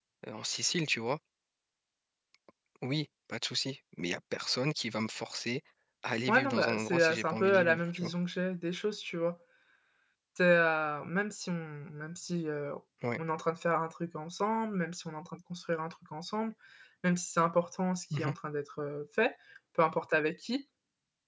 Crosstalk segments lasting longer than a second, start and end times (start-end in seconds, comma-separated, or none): 6.3-8.1